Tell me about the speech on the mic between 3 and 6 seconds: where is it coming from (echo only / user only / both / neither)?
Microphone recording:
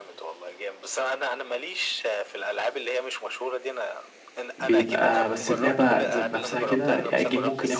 both